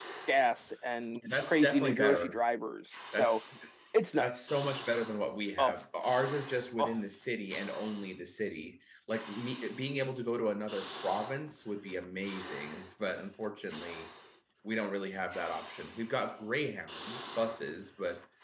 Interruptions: present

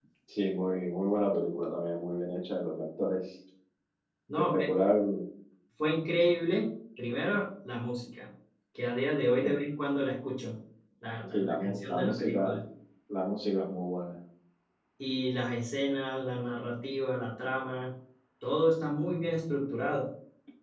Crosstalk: present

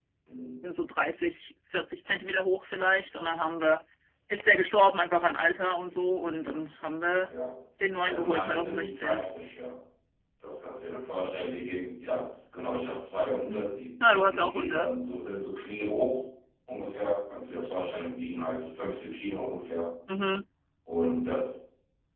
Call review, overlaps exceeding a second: present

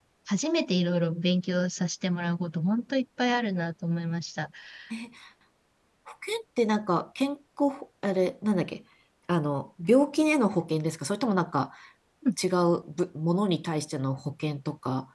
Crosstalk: none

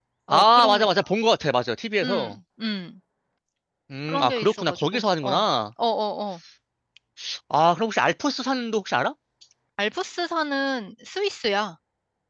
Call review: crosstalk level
present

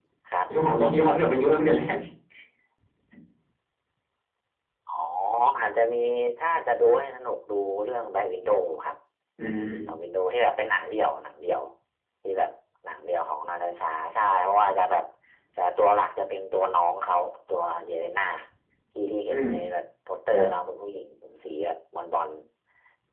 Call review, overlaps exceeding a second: none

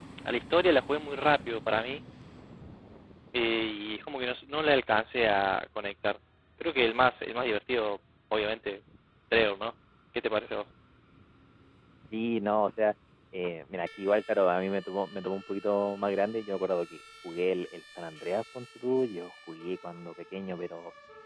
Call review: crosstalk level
none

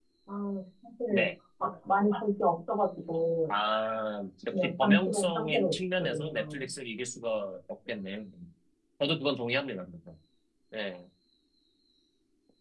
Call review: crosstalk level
present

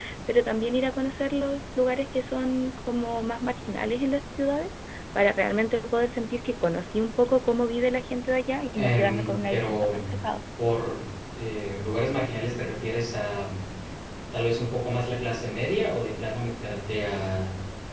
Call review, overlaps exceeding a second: present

